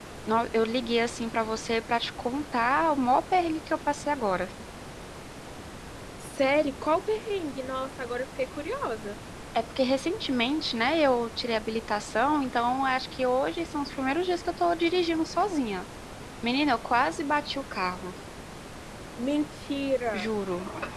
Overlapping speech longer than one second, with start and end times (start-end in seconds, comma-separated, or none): none